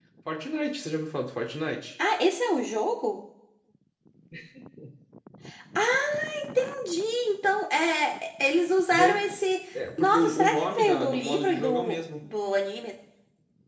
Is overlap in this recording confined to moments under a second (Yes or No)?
No